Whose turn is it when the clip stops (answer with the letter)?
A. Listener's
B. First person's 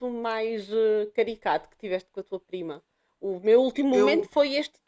B